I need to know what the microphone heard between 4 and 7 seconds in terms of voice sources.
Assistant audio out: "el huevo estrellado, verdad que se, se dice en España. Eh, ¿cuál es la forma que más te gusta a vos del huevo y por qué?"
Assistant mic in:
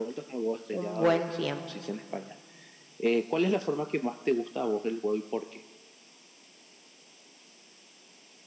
echo only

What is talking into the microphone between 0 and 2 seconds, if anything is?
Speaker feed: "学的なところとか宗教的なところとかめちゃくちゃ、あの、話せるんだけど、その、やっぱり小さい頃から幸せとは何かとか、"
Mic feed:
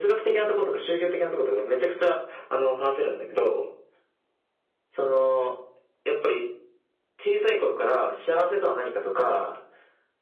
echo only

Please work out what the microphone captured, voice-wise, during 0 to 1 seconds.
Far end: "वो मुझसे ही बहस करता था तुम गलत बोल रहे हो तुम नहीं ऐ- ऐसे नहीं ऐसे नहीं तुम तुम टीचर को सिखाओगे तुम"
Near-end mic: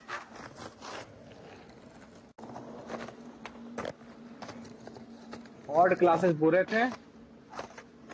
neither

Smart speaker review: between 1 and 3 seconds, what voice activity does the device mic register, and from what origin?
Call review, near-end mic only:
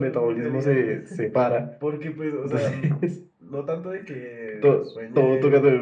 both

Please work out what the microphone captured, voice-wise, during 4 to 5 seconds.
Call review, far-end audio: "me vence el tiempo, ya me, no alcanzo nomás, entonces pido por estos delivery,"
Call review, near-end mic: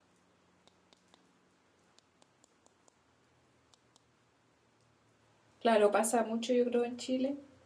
neither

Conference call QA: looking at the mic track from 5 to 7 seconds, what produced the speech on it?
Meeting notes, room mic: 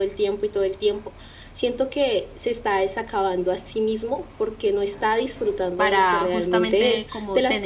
both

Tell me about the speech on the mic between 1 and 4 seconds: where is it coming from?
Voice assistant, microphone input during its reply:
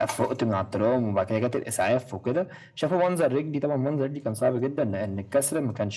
echo only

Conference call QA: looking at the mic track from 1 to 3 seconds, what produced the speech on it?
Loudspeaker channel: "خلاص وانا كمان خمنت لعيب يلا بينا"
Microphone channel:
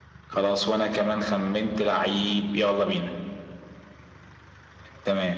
echo only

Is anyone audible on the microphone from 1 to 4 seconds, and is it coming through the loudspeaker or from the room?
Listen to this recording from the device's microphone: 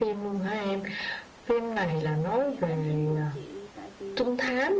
both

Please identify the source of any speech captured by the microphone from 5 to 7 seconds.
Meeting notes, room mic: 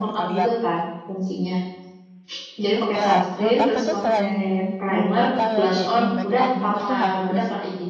both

